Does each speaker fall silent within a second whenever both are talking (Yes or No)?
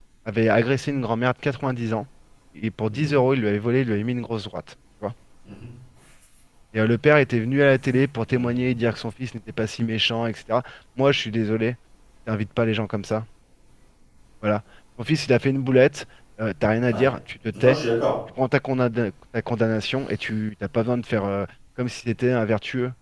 Yes